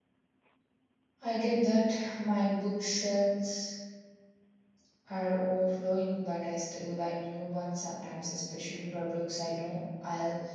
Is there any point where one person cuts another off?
No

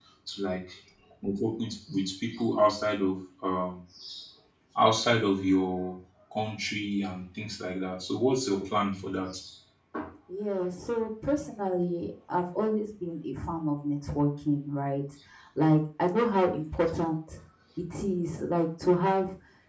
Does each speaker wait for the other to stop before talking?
Yes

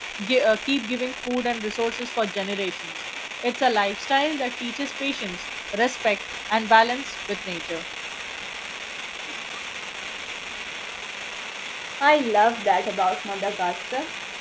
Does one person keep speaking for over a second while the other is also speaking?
No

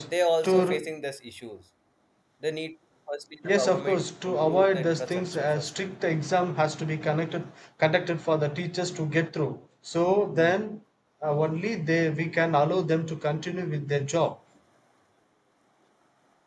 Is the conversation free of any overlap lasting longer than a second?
No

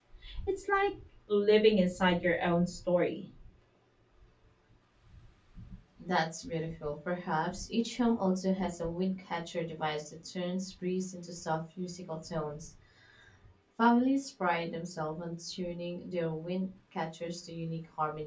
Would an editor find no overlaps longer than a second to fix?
Yes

